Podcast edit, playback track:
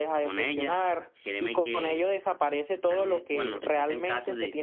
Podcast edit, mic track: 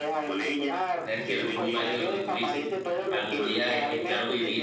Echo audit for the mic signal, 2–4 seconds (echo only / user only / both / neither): both